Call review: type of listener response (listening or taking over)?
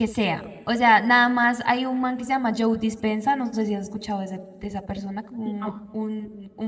listening